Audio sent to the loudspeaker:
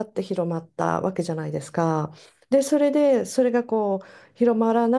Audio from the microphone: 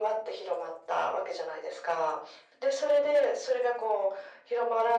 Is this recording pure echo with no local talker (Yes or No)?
Yes